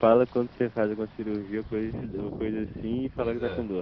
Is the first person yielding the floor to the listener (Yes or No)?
No